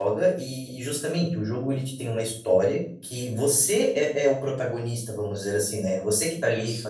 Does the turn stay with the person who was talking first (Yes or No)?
Yes